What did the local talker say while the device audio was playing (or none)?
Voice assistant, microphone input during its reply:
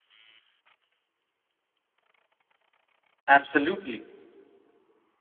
Absolutely.